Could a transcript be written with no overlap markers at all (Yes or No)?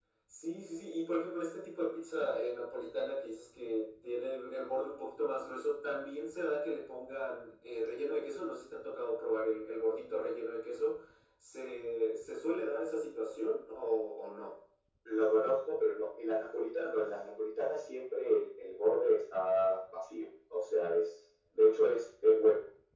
Yes